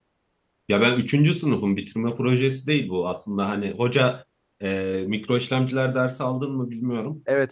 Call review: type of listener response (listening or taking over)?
taking over